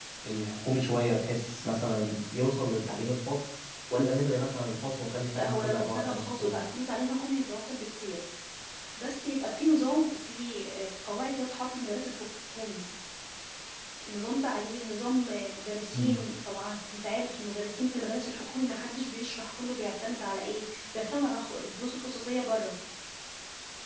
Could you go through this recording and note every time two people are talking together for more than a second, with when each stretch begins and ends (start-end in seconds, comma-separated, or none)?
5.3-6.6